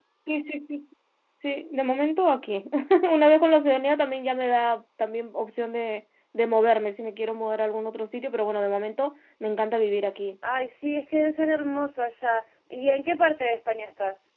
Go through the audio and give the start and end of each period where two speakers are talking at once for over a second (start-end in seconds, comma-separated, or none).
none